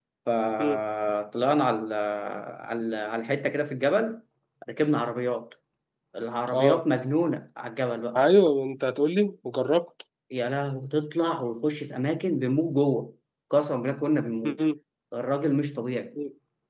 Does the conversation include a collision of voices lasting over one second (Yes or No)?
No